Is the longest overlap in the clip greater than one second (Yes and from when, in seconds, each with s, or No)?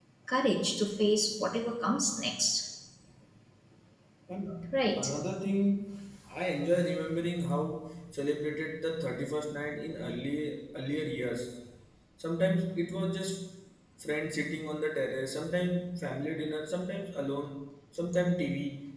No